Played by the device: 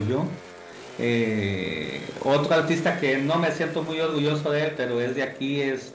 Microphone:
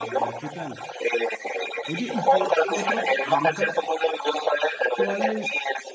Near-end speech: present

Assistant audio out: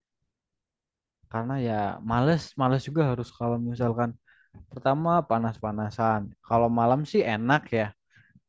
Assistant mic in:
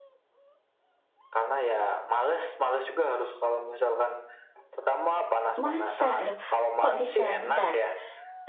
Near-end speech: present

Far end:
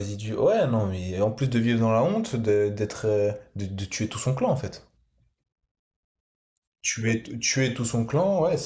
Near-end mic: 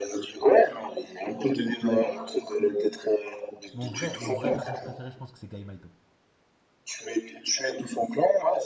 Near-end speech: present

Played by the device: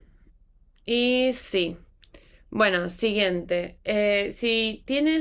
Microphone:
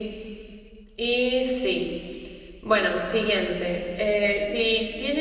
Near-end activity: none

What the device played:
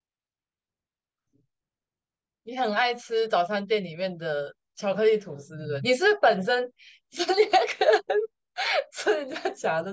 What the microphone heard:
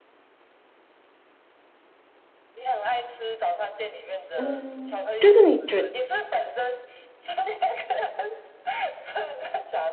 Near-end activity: present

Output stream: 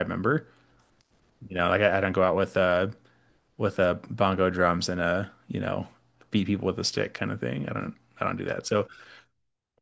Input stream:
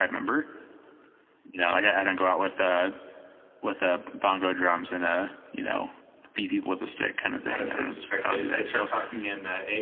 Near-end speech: present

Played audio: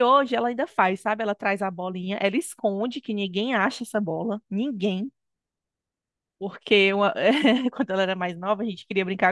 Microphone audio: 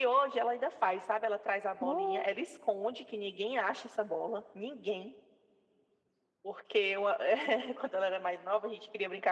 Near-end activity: present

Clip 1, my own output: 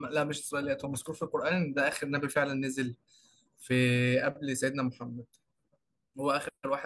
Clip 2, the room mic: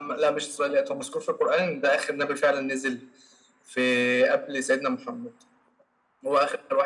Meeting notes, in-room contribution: none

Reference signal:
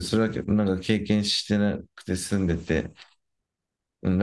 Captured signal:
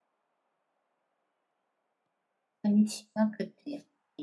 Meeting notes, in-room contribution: present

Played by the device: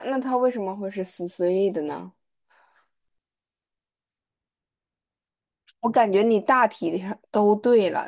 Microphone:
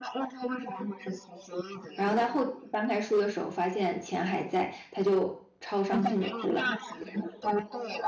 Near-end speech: present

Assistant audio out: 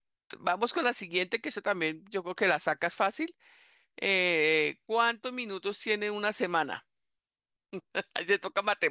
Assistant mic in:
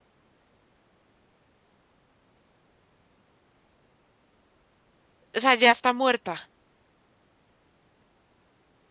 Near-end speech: present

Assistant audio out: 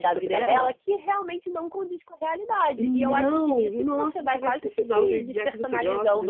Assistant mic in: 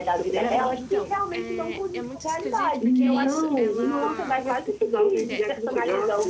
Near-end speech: present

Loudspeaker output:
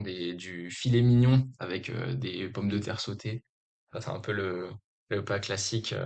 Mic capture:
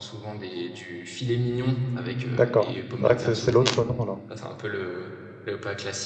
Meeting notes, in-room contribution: present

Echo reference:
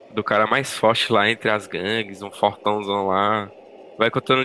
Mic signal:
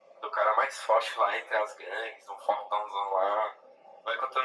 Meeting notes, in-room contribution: none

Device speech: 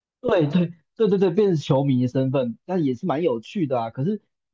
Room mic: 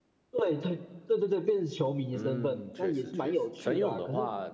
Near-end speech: present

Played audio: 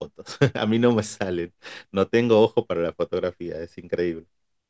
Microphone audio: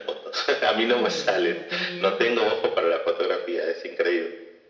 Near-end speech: present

